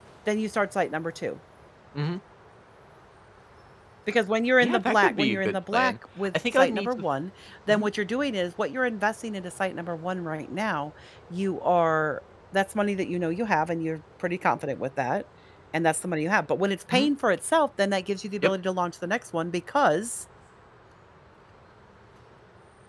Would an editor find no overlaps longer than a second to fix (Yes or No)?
No